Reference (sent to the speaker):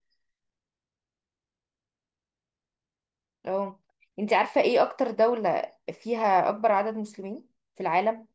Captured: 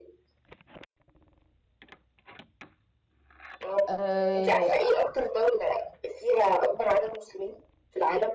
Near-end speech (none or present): present